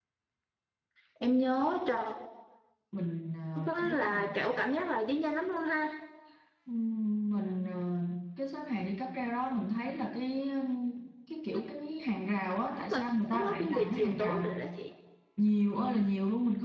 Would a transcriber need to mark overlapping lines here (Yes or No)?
Yes